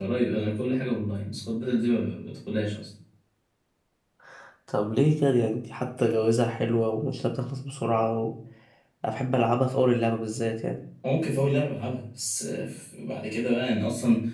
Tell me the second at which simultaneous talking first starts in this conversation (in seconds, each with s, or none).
none